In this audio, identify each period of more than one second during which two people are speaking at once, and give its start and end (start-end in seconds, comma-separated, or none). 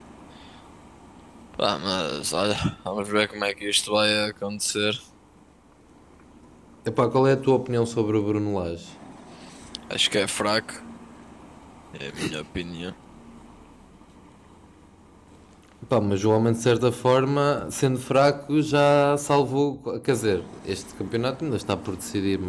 none